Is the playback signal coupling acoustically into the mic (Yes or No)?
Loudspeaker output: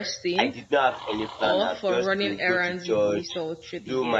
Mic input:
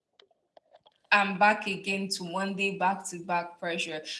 No